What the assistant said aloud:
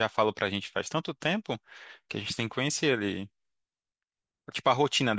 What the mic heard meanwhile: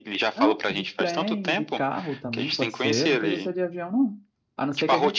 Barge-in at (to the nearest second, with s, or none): 0 s